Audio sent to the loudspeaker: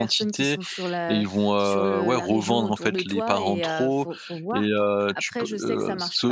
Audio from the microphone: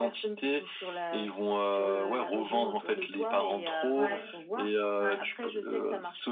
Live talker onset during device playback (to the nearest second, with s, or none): 4 s